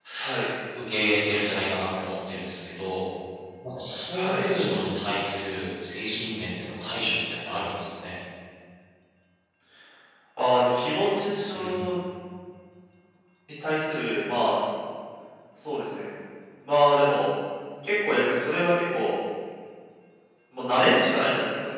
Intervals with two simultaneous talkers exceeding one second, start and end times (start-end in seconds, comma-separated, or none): none